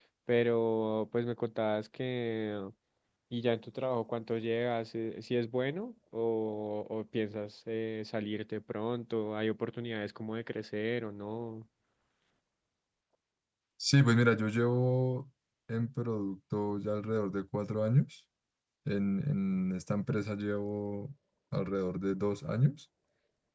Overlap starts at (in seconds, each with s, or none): none